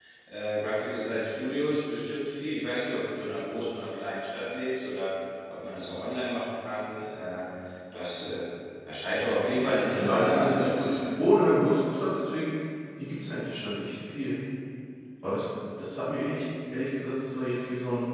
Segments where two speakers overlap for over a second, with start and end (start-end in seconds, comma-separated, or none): 9.9-11.2